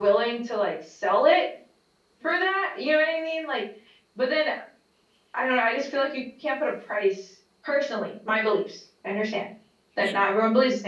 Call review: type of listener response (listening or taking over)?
listening